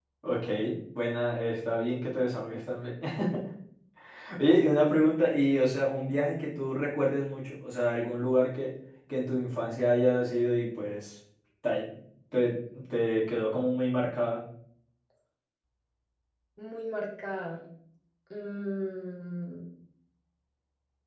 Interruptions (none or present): none